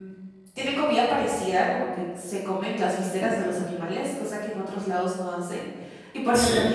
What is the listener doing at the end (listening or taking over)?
listening